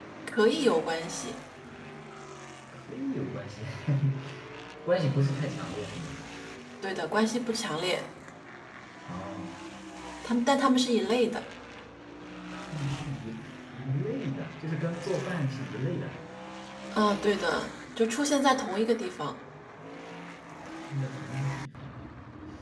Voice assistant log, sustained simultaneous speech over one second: none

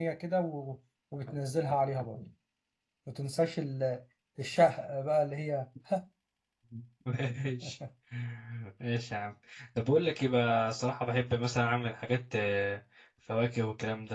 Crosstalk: none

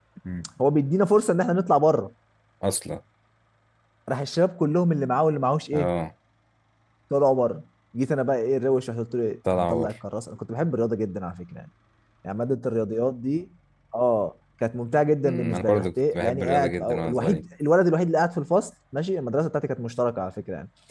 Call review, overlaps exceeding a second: present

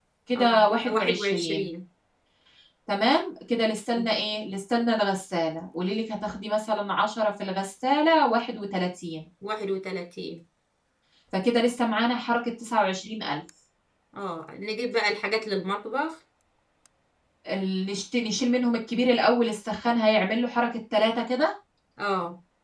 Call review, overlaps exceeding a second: present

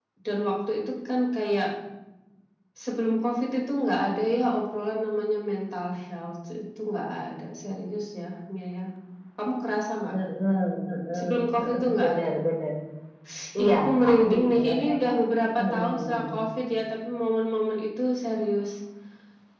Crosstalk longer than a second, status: present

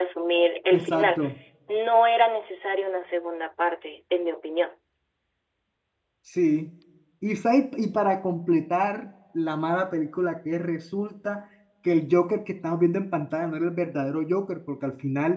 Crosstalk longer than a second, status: none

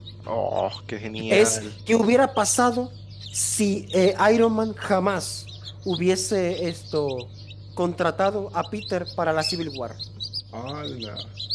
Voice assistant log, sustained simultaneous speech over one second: none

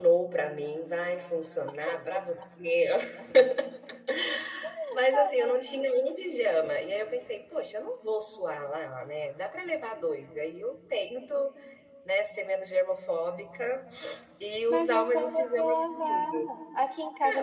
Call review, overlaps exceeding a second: present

